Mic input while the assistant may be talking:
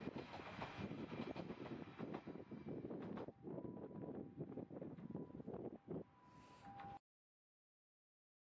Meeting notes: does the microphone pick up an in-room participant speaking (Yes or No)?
No